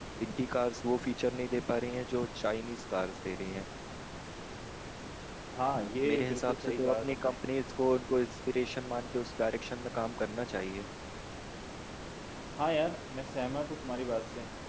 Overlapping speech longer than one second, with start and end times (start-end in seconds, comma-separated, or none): 6.1-7.3